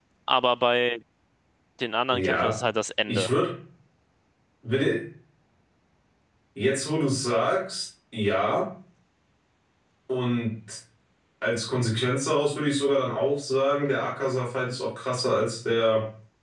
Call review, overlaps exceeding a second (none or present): none